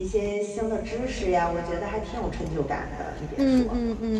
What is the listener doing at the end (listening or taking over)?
taking over